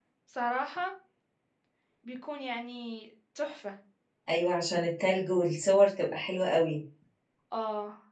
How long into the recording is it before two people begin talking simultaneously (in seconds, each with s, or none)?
none